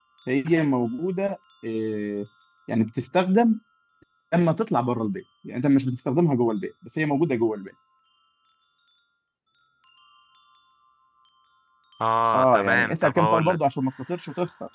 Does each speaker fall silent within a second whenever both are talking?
No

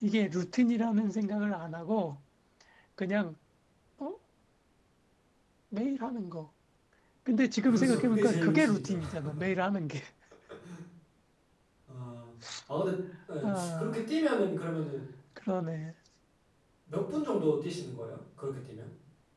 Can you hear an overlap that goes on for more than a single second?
Yes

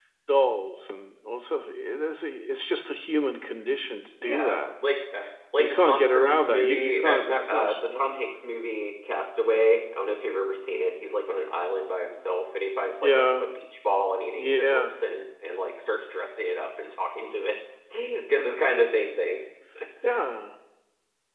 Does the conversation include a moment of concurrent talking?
Yes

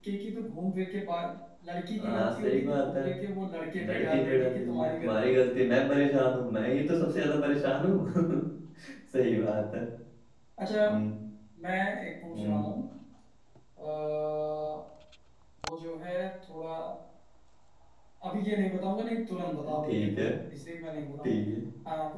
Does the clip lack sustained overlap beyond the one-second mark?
No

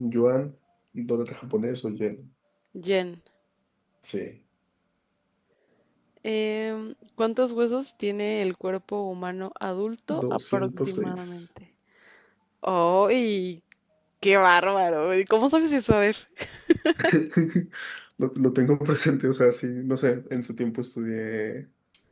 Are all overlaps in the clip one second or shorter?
No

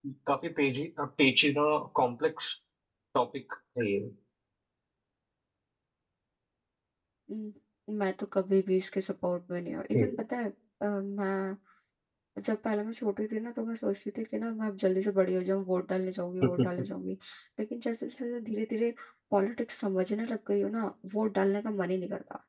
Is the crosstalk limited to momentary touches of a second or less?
Yes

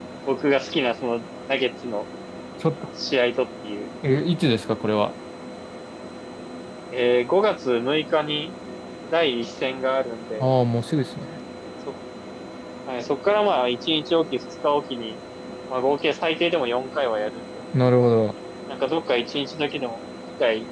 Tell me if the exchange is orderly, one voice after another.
Yes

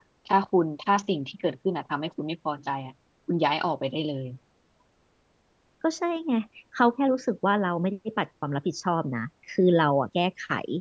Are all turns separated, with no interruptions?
Yes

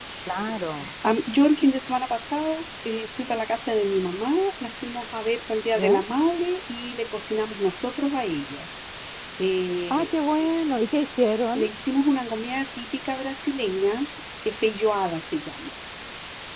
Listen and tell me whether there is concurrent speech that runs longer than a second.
No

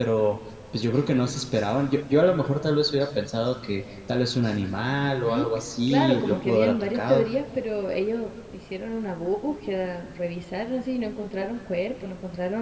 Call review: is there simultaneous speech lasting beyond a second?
Yes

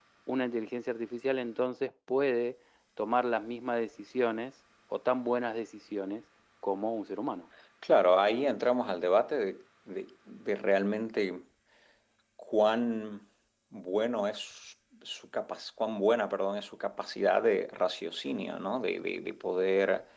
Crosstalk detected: No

